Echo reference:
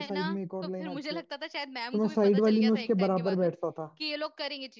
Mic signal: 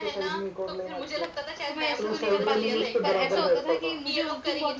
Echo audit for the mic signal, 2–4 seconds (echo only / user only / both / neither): both